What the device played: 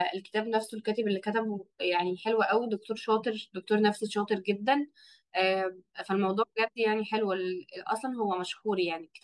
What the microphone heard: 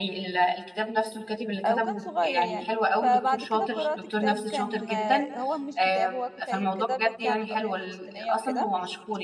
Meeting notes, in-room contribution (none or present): present